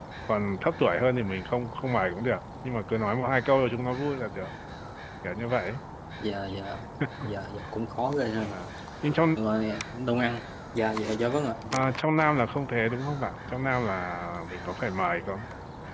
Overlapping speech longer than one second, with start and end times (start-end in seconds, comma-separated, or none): none